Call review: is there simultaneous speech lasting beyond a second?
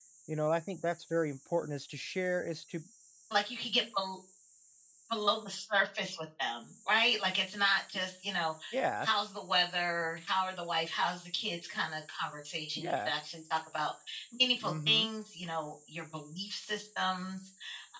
No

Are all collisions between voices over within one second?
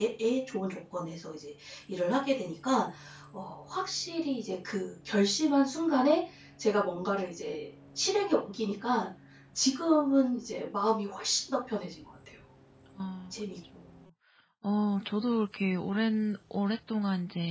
Yes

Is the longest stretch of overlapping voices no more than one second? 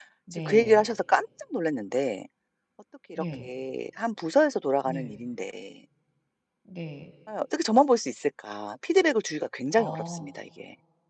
Yes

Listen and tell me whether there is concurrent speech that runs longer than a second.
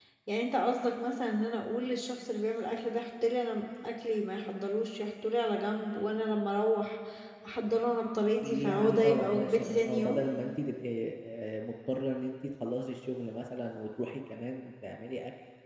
Yes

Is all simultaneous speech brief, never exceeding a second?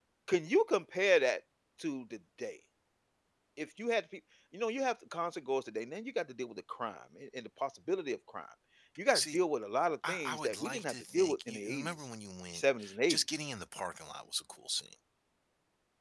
No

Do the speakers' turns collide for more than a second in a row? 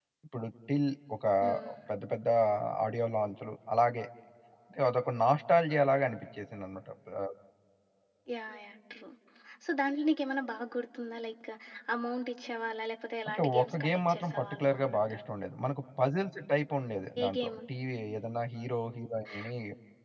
Yes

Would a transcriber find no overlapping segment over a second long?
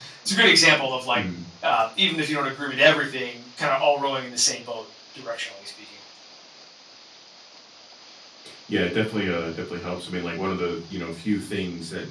Yes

